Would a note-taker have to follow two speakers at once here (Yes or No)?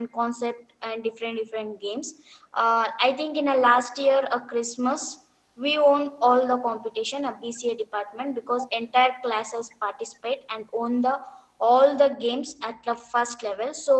No